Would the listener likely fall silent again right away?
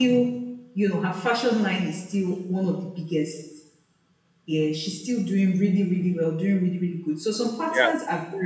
Yes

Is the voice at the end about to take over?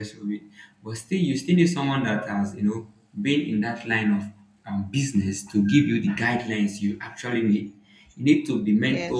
No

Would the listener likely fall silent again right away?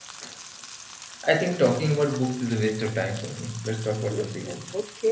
No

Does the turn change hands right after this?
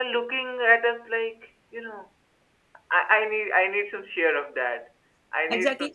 Yes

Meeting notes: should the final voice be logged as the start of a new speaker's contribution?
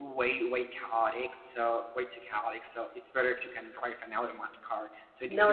No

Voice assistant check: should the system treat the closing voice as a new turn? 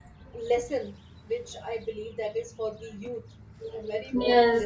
Yes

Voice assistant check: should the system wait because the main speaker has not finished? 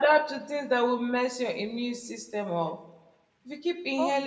Yes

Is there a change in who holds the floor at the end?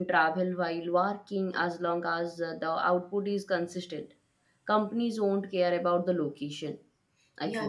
Yes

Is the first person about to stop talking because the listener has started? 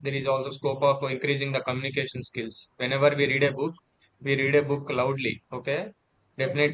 No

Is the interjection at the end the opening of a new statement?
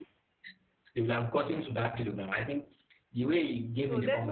Yes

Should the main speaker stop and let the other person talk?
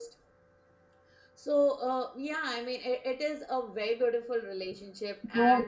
Yes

